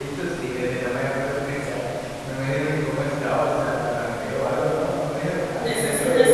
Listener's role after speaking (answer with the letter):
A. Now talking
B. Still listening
A